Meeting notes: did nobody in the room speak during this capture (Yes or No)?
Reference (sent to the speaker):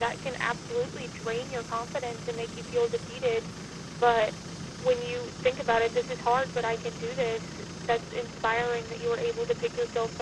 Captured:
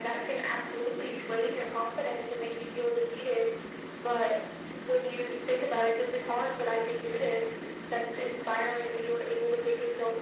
Yes